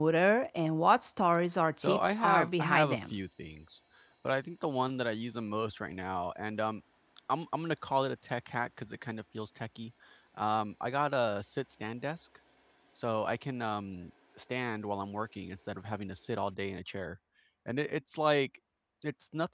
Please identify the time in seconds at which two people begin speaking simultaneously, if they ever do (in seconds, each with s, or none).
1.8 s